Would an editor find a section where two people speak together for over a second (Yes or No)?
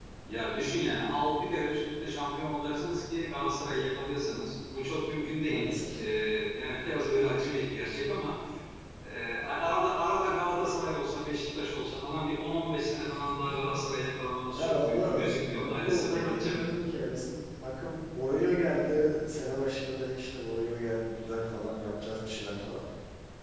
Yes